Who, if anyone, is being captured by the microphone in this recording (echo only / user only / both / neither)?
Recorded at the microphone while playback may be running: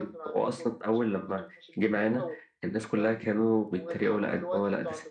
echo only